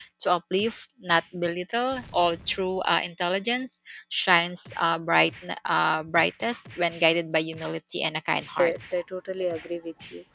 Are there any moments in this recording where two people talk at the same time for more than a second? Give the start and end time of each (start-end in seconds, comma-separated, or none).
none